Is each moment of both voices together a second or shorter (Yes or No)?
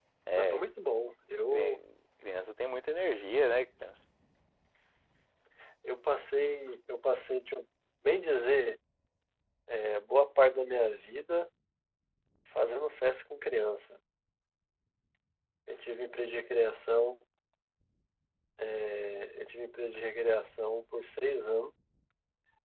Yes